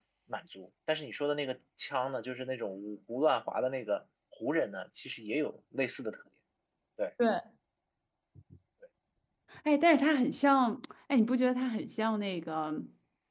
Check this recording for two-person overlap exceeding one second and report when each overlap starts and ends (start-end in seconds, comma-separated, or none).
none